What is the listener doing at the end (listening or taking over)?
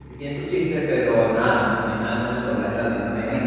taking over